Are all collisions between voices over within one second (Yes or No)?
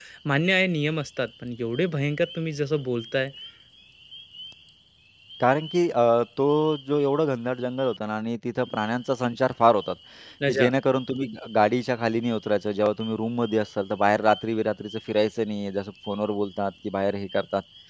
Yes